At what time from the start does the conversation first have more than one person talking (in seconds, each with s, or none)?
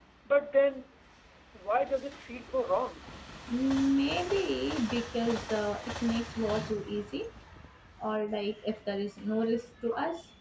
none